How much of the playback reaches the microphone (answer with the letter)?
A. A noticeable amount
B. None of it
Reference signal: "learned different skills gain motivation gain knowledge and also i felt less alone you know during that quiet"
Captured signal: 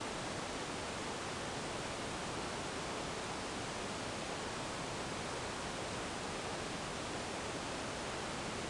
B